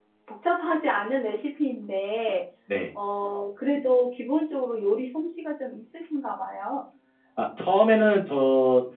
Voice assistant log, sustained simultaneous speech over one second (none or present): none